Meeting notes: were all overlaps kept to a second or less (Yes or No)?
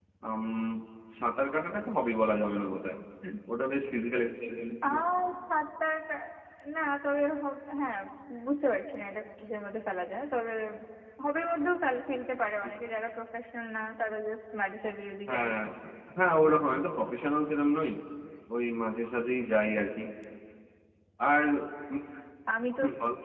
Yes